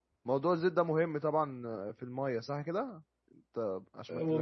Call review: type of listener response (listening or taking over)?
taking over